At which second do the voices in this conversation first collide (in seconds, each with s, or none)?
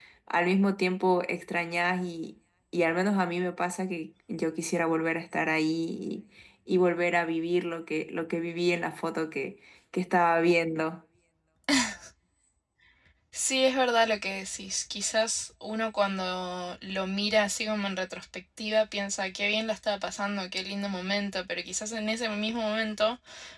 none